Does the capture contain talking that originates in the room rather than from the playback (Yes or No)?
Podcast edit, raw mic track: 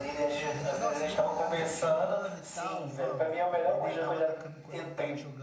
Yes